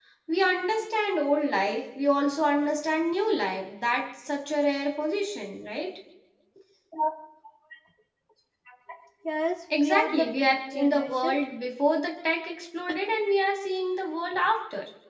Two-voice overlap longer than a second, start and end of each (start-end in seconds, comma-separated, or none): 9.7-11.4